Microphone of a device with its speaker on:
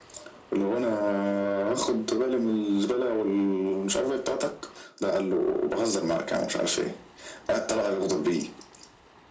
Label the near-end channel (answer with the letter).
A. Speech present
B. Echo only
B